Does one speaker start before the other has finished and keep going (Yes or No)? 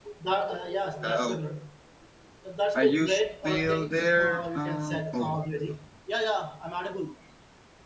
Yes